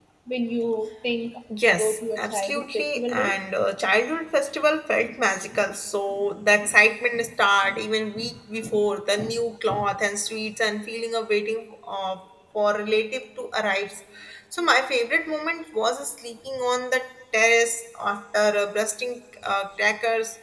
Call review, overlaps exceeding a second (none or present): present